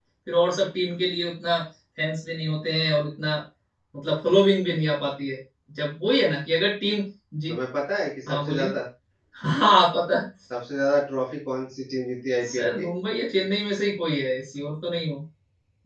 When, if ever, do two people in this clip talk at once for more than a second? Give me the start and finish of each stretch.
none

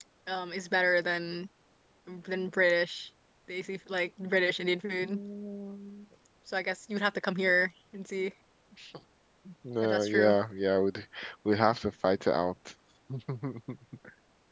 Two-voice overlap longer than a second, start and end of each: none

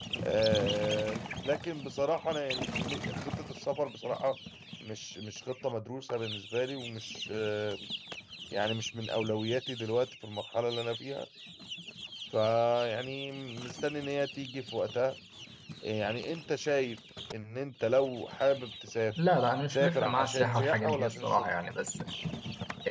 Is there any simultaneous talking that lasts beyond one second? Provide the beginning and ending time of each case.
19.7-21.5

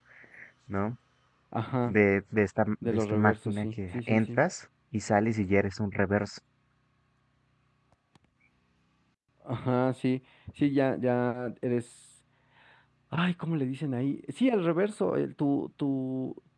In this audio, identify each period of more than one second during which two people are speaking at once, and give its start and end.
2.8-4.4

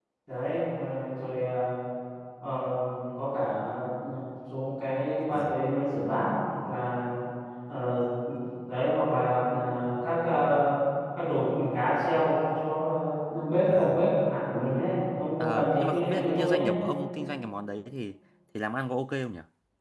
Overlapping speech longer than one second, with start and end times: 15.4-16.7

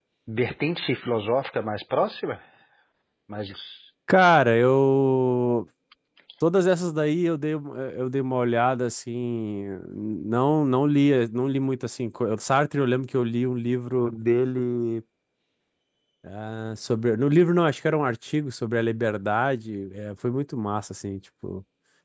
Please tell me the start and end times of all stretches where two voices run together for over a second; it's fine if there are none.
none

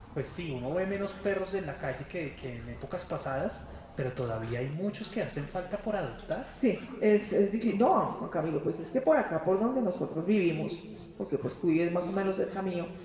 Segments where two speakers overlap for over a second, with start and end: none

